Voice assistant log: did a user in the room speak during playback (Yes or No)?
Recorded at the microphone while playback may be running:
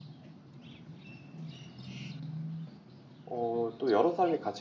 Yes